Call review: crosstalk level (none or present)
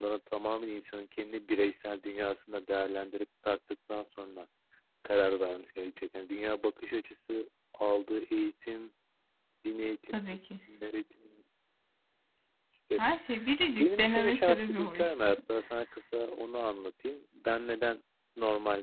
present